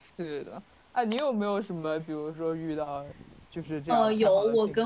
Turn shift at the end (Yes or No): Yes